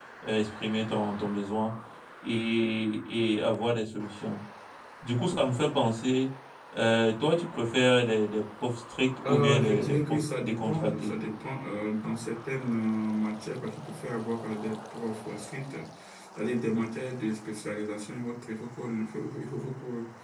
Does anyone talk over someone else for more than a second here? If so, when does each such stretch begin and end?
9.2-11.2

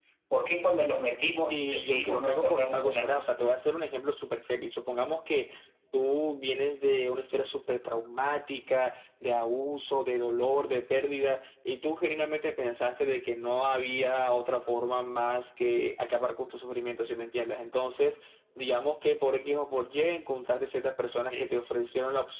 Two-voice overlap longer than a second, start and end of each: 1.5-3.3

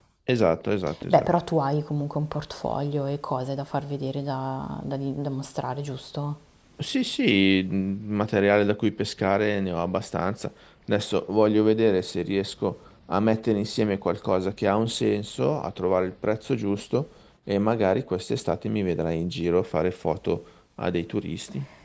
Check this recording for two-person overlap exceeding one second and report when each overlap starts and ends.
none

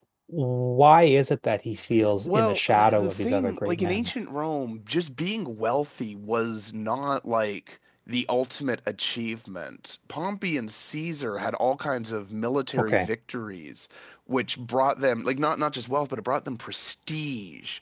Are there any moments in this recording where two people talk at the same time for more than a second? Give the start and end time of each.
2.2-4.1

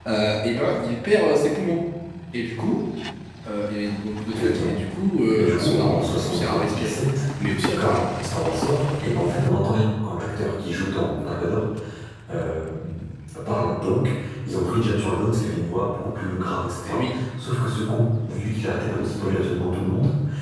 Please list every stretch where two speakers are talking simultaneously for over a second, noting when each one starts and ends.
5.4-7.0

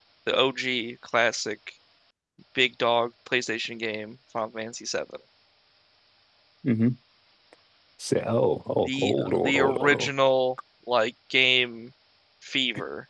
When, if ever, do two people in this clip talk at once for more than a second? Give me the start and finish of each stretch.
8.8-10.1

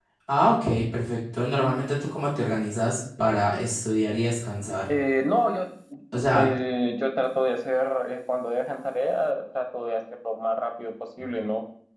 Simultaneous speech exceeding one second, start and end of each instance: none

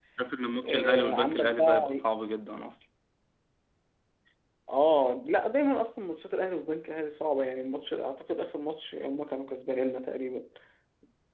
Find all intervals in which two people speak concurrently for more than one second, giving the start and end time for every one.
0.6-2.1

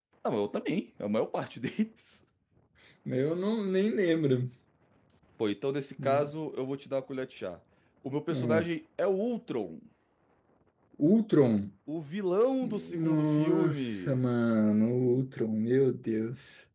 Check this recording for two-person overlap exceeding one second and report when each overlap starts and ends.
12.6-14.2

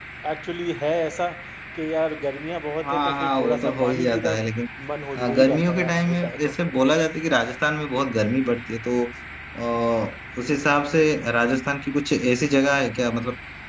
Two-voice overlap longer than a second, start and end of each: 2.8-4.4, 5.2-6.6

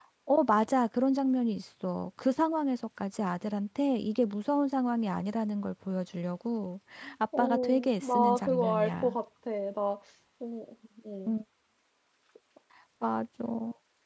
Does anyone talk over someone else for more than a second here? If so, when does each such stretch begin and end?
7.4-9.2

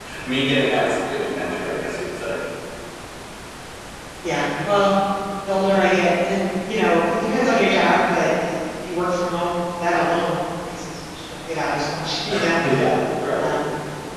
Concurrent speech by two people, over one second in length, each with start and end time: none

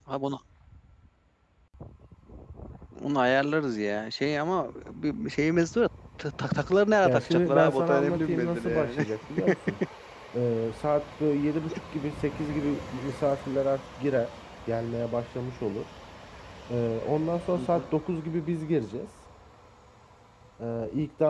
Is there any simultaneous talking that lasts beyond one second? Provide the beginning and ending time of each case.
7.0-9.0

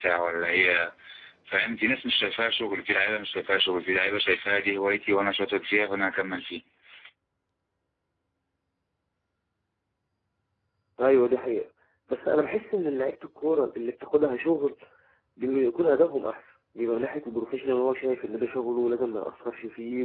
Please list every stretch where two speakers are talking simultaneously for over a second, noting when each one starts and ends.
none

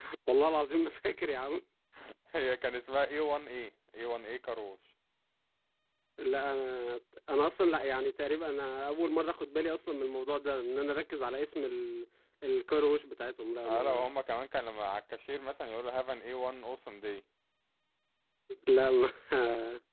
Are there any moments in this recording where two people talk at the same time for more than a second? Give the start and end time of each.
none

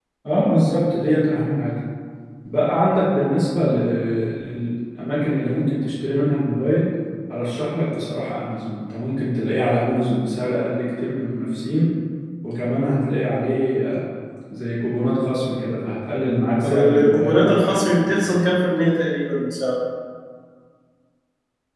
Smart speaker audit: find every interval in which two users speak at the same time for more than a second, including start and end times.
16.6-18.3

